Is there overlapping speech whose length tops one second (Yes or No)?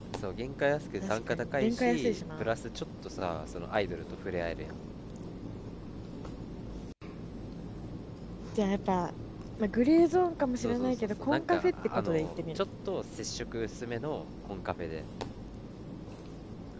Yes